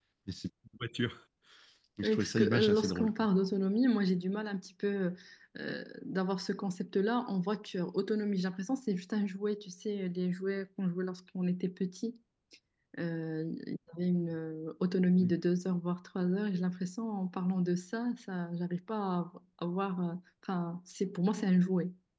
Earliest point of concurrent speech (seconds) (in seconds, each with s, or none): 2.0 s